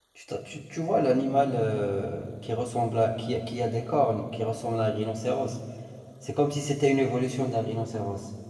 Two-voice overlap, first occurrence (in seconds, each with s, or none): none